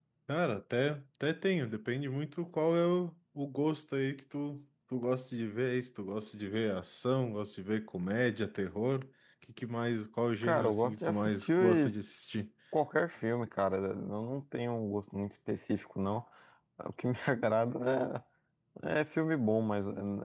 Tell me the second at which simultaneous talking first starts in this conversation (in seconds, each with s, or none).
10.4 s